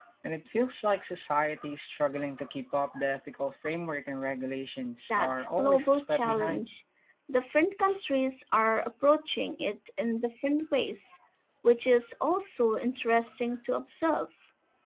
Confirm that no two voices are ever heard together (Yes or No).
No